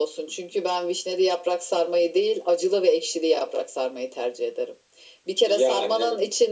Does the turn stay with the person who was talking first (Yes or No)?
Yes